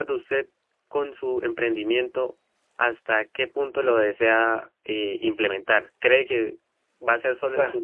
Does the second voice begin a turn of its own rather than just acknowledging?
No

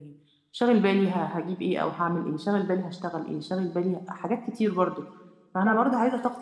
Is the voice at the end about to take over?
No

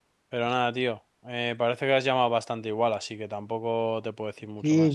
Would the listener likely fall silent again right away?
No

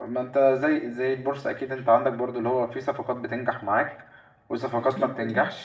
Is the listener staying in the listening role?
Yes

